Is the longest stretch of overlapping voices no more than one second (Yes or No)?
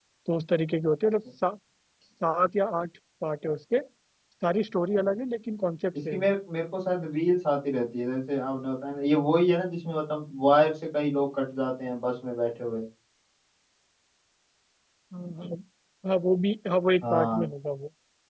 Yes